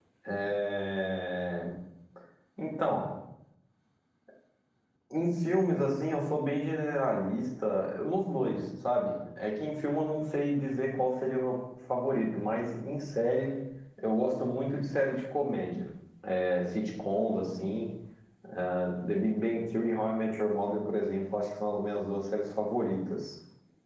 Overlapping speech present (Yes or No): No